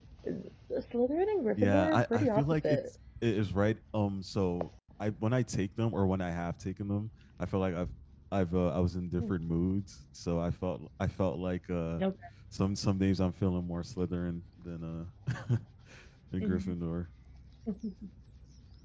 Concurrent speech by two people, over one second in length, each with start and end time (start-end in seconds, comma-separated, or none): 1.6-2.8